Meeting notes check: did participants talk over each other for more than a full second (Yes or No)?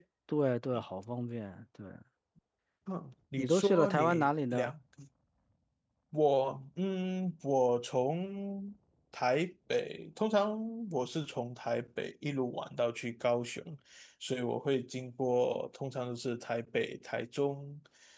Yes